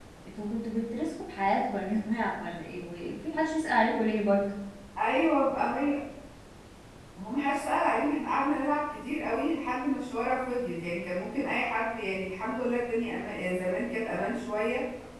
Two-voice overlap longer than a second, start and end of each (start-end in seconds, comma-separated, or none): none